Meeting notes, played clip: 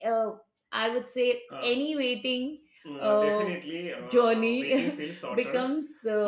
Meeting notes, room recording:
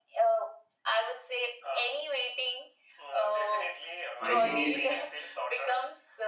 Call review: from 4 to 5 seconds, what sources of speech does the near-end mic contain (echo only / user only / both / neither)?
both